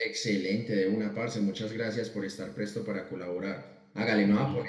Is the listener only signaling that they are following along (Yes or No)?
Yes